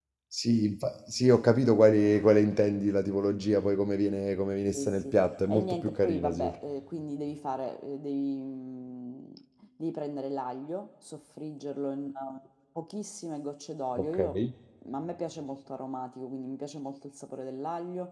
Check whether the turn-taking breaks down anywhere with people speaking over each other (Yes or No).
Yes